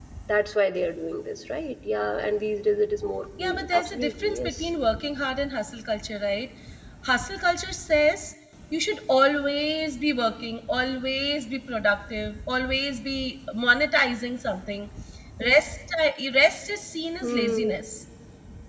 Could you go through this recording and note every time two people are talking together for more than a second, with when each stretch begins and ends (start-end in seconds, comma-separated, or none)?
3.4-4.7